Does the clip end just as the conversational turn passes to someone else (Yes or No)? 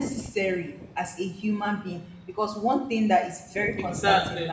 No